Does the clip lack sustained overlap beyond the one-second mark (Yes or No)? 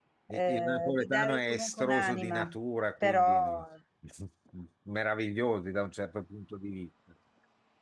No